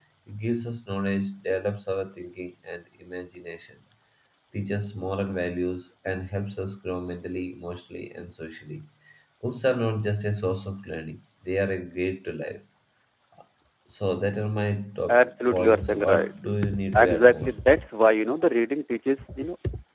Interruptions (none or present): present